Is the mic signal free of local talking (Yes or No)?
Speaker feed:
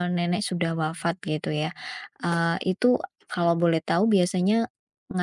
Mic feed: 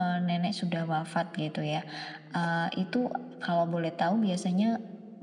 Yes